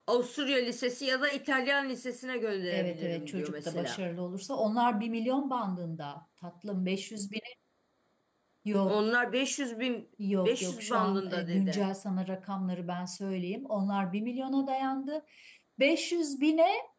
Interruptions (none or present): present